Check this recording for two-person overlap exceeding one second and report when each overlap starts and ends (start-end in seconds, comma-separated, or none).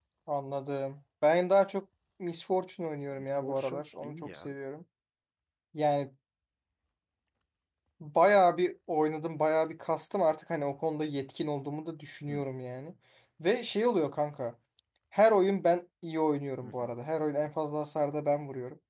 3.2-4.4